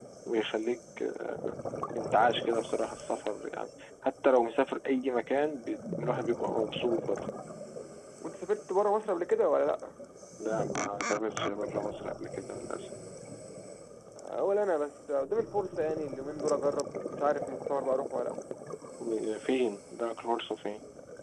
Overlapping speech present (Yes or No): No